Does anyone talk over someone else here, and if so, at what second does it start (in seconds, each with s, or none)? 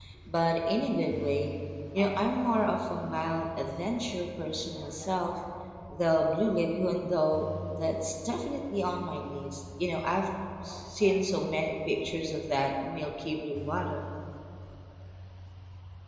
none